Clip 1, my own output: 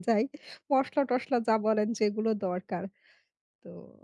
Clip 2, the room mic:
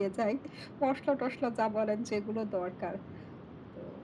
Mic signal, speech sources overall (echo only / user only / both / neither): echo only